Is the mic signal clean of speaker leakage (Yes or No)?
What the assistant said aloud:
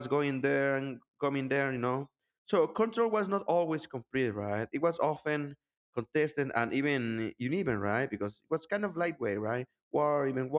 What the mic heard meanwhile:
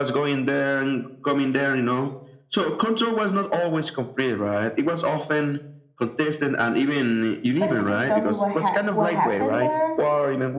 No